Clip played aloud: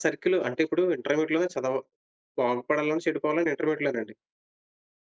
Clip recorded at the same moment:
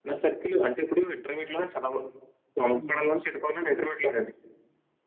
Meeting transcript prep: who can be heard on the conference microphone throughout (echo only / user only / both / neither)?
both